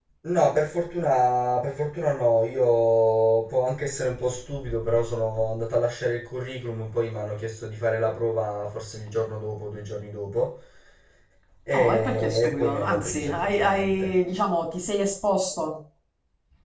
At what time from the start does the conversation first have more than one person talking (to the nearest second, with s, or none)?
12 s